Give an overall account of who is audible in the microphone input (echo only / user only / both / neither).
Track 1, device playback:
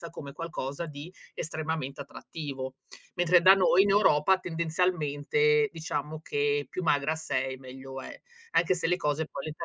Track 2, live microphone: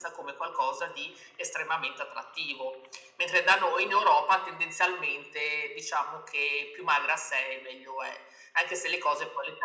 echo only